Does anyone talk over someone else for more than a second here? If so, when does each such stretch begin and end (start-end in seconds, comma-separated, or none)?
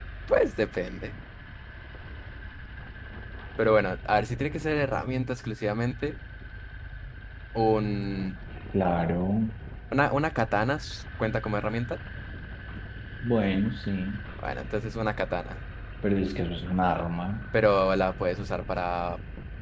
none